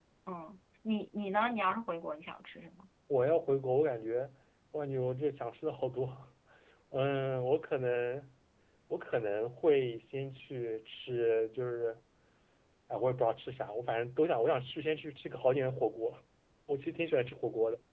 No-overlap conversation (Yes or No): Yes